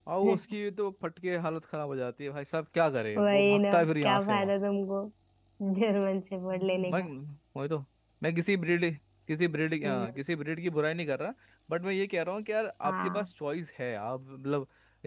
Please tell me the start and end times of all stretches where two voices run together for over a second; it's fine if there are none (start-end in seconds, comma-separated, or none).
3.2-4.5